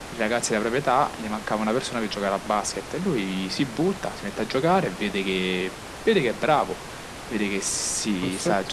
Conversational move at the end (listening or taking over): listening